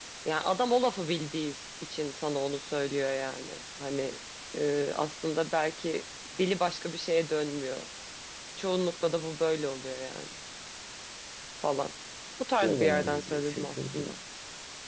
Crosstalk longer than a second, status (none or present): present